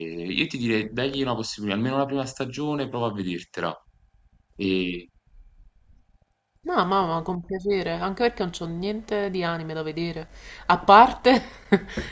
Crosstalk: none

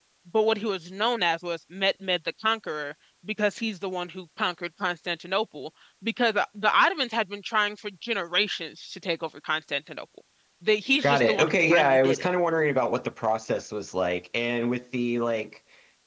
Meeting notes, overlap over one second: present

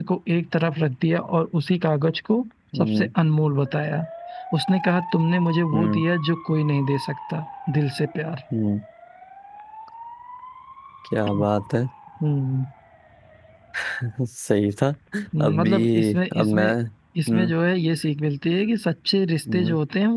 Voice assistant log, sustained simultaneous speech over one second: present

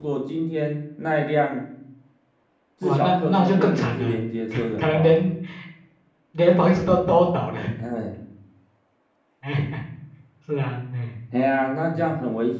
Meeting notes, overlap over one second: present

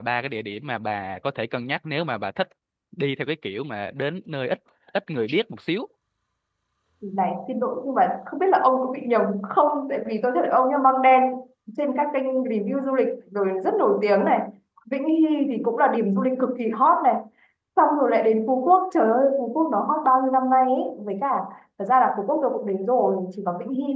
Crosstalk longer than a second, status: none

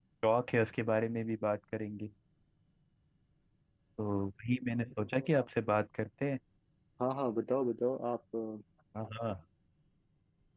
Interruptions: none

